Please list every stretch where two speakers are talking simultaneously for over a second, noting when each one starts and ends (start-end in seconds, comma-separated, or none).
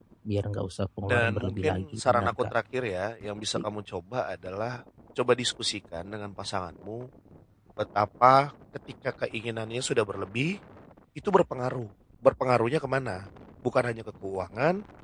1.1-2.3